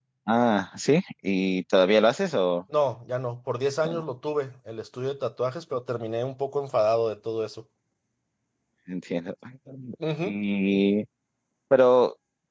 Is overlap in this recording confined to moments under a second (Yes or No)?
Yes